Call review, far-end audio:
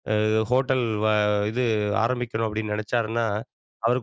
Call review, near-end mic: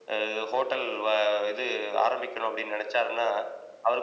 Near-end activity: none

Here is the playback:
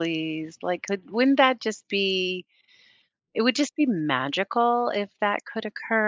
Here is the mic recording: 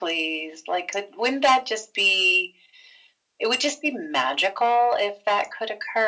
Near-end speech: none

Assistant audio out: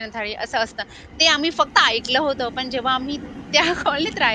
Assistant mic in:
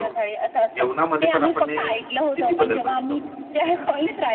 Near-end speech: present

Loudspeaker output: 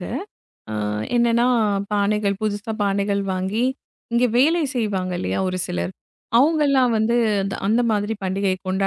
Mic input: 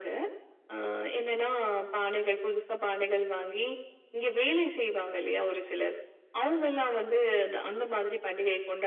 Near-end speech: none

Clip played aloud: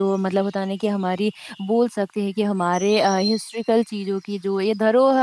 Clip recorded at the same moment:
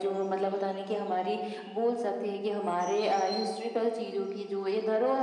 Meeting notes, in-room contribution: none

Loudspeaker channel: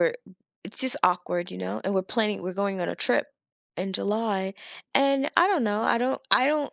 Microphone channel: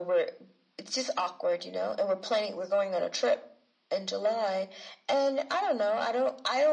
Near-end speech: none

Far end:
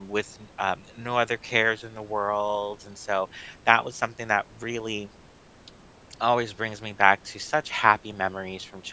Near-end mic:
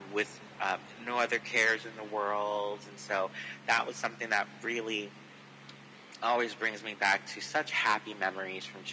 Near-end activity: none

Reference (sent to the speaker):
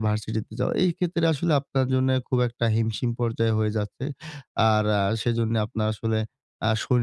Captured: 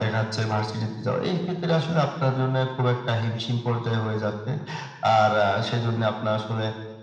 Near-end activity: none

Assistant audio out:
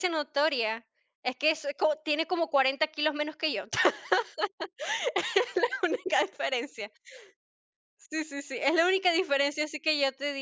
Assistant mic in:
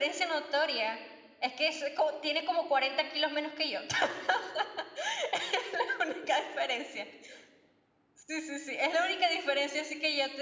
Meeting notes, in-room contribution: none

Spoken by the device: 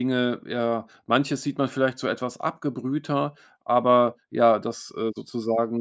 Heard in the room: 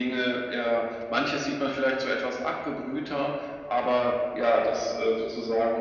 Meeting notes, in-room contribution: none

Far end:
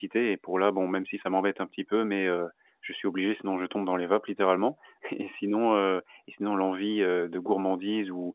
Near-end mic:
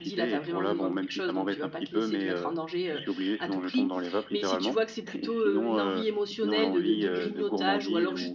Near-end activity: present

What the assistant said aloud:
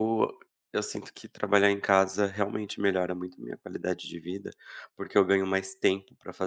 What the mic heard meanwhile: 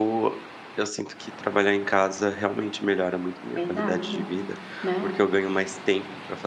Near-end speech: present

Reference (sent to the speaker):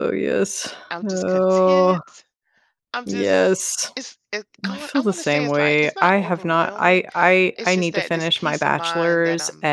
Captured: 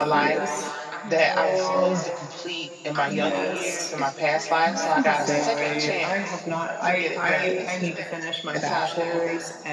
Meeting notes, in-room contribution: present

